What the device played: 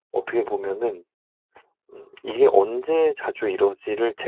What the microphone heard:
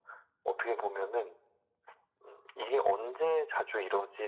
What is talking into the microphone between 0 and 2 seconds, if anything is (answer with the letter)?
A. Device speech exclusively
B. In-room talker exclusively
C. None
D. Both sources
A